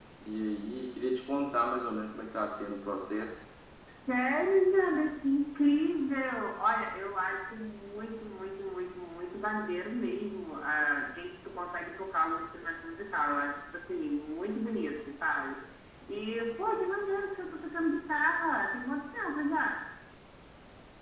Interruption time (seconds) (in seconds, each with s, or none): none